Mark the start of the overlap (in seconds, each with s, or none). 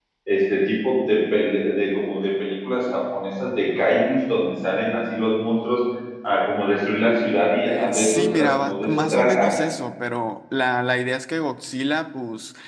7.7 s